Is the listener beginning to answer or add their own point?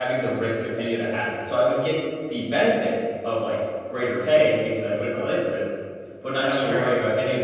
No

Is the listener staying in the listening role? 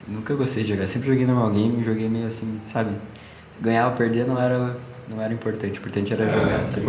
No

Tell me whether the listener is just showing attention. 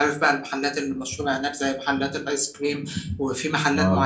Yes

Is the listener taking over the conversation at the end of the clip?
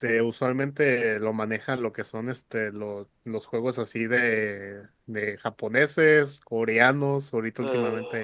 No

